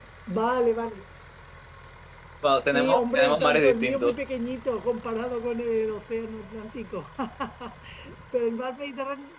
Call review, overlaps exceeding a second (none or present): present